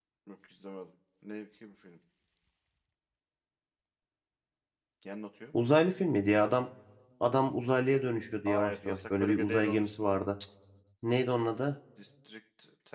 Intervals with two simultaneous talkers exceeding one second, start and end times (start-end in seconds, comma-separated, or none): 8.4-10.1